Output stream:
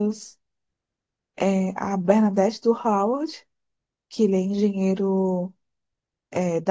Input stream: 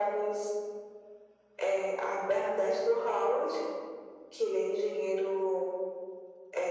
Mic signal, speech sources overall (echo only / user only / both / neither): echo only